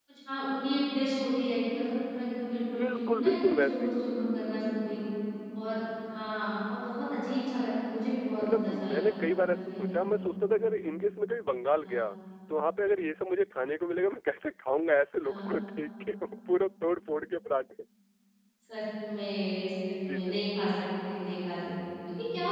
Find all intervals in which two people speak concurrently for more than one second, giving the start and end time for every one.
2.8-4.0, 8.4-10.2

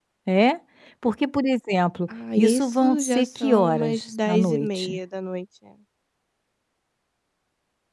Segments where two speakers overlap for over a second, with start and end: 2.4-5.0

